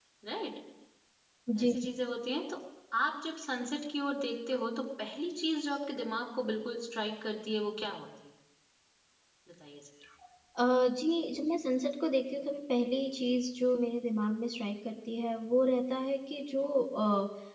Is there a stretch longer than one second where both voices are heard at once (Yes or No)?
No